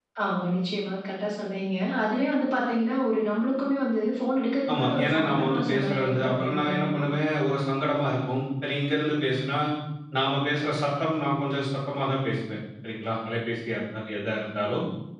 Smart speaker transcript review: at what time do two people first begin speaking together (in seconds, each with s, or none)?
4.7 s